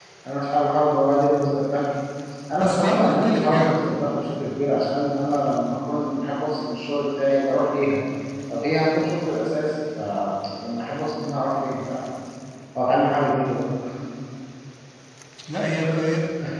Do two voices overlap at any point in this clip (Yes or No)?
Yes